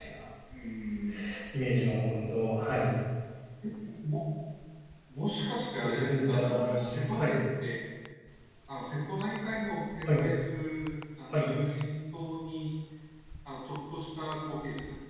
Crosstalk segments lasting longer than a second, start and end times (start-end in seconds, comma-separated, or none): 5.7-7.4